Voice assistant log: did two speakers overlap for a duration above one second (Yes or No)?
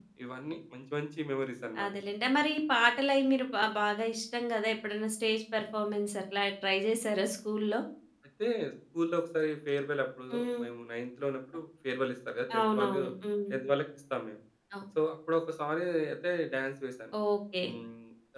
No